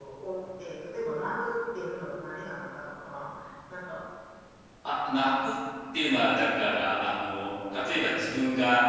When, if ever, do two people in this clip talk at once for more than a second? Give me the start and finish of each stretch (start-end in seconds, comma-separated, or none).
none